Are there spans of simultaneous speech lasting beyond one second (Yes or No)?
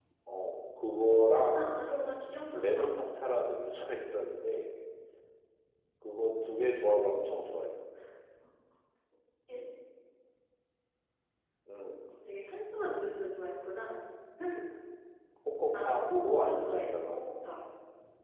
Yes